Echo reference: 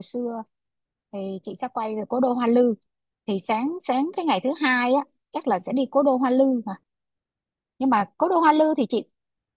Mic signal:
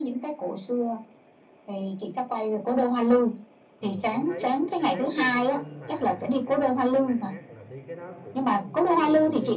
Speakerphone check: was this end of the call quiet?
No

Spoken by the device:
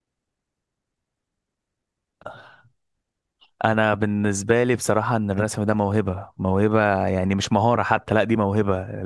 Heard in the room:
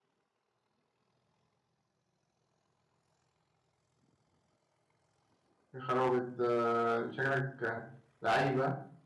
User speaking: Yes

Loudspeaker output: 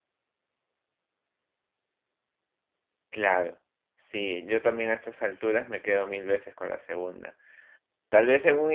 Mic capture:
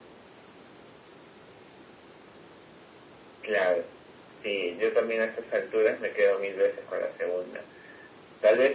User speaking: No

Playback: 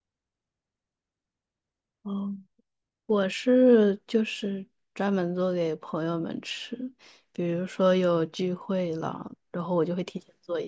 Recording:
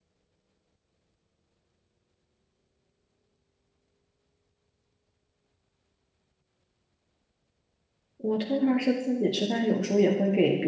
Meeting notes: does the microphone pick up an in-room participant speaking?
Yes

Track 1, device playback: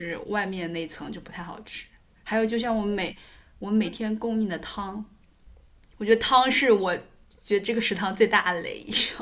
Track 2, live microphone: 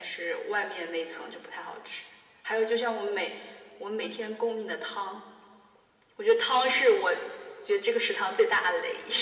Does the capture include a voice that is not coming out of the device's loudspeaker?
No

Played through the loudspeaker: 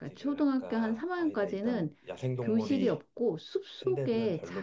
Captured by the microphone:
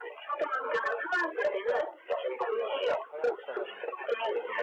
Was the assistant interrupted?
Yes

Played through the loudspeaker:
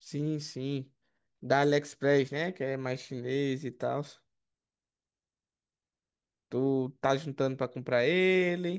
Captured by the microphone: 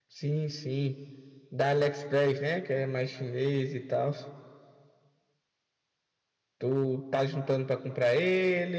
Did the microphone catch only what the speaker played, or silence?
Yes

